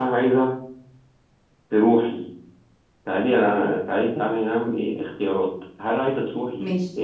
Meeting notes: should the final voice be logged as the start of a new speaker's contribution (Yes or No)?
No